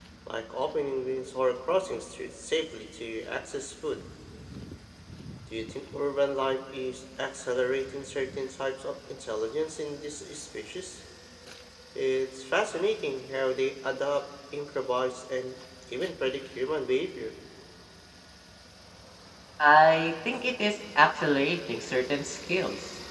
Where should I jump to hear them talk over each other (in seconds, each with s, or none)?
none